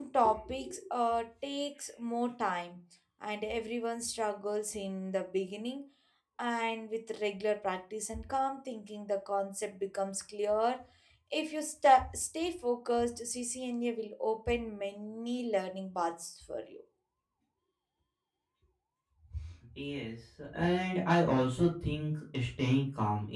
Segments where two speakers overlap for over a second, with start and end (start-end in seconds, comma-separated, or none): none